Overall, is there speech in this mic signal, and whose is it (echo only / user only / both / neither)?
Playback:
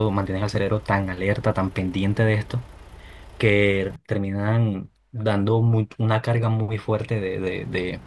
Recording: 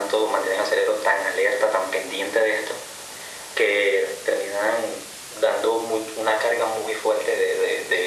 echo only